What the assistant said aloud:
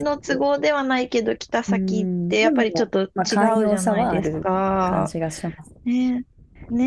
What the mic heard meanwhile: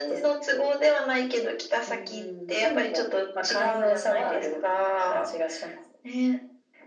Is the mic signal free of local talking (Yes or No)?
Yes